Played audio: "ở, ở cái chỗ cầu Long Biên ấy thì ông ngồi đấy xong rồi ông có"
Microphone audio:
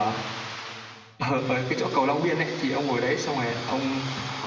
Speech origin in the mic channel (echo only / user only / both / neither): echo only